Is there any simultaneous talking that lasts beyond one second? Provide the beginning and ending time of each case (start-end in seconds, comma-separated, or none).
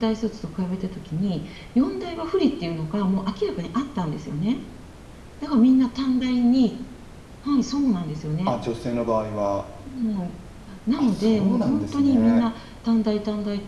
11.0-12.4